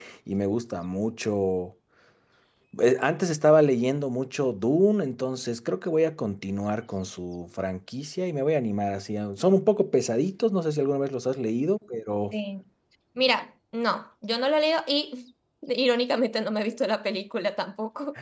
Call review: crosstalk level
none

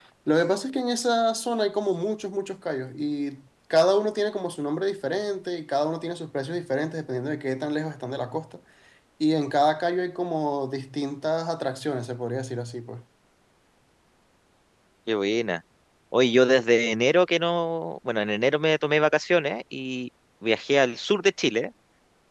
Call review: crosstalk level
none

